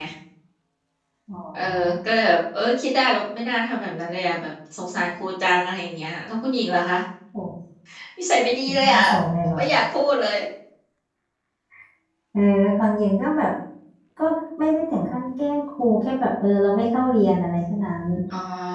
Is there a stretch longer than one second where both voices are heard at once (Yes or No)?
No